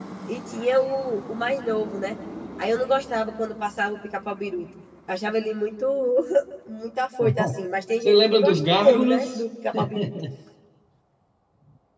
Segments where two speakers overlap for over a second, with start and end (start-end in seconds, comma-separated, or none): 8.0-9.4